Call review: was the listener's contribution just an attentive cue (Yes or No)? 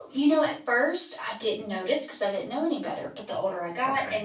Yes